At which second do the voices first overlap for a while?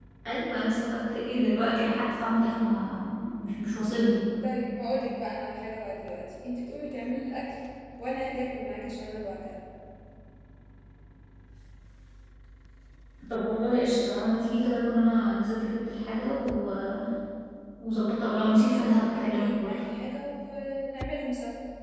18.6 s

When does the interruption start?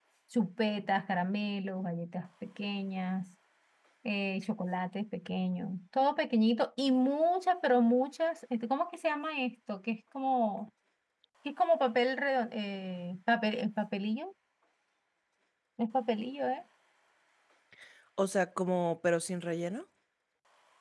none

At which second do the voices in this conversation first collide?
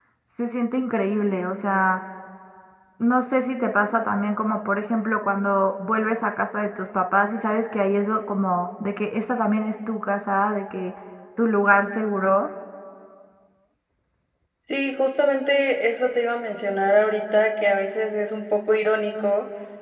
none

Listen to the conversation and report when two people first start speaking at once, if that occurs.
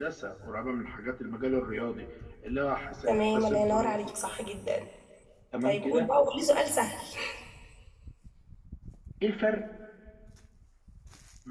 3.1 s

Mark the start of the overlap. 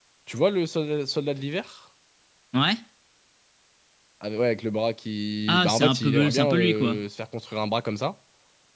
5.5 s

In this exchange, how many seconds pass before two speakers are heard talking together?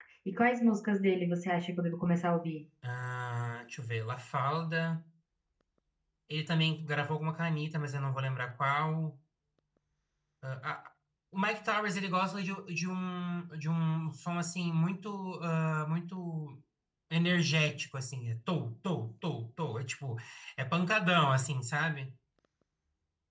none

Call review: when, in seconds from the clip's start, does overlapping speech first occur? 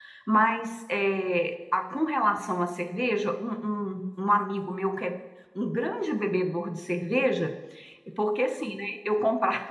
none

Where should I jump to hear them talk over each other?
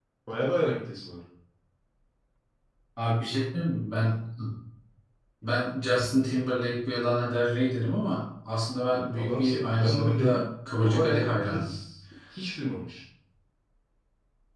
8.9 s

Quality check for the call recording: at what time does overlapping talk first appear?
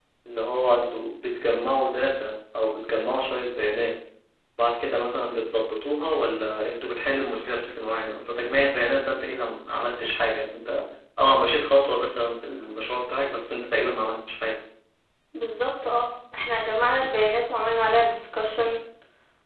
none

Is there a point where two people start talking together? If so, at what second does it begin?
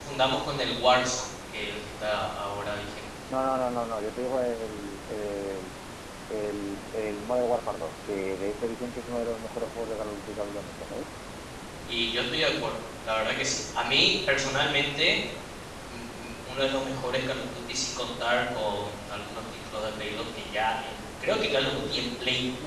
none

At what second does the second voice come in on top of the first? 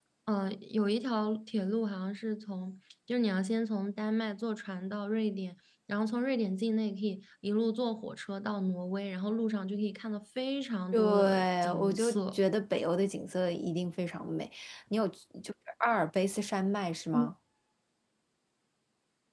10.9 s

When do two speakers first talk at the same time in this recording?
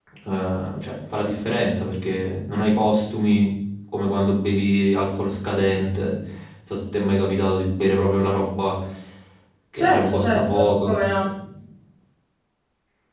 9.8 s

